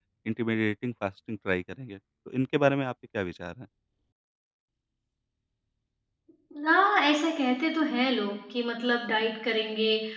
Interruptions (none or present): none